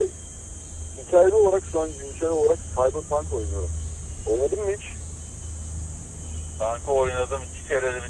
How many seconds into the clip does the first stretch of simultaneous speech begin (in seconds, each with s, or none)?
none